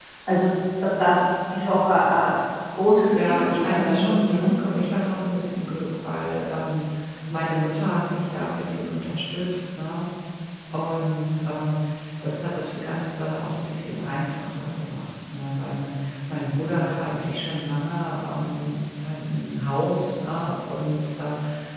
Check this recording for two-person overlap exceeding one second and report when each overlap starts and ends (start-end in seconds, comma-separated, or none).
3.1-4.5